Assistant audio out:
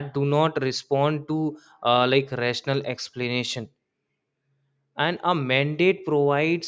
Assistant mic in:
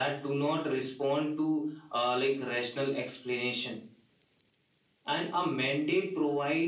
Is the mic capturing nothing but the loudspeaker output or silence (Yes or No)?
Yes